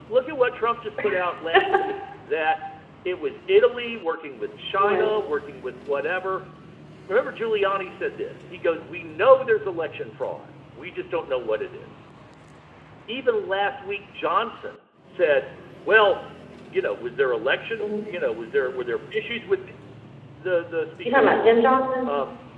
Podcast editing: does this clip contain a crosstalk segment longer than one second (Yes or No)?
No